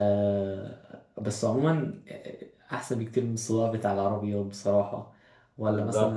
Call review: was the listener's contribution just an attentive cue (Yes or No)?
Yes